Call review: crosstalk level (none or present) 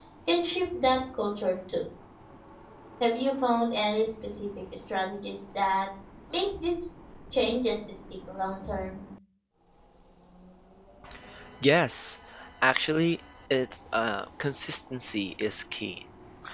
none